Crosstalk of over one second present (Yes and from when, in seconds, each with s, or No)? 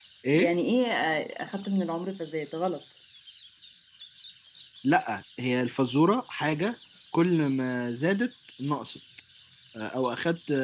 No